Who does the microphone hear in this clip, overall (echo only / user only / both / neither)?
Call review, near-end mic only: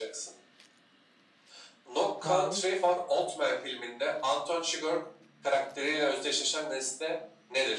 both